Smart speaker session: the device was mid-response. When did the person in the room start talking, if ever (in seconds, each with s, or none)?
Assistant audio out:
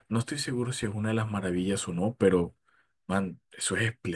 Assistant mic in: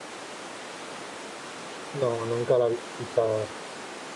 1.9 s